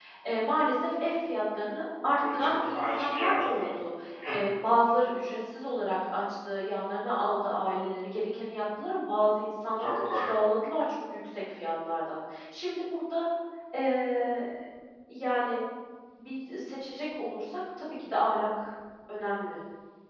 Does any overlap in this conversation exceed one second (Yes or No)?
Yes